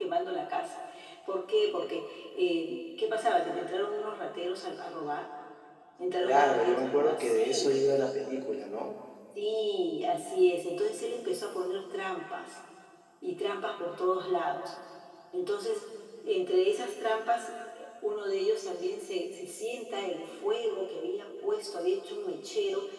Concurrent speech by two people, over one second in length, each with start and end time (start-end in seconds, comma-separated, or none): 6.2-7.8